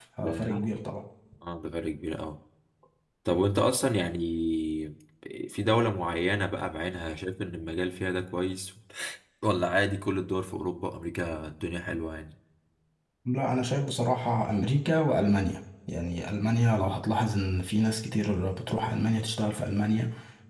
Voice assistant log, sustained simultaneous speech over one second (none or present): none